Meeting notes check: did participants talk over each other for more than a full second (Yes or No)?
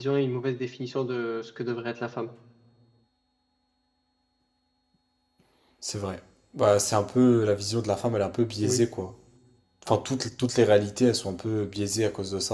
No